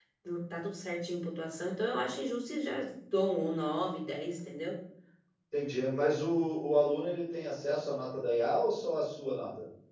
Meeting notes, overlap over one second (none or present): none